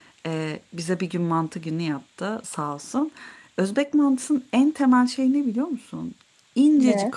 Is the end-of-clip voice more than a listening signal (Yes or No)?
No